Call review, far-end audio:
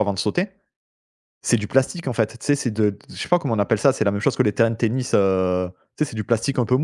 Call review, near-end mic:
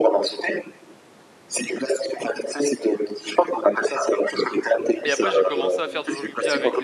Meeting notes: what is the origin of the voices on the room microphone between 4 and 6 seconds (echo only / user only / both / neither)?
both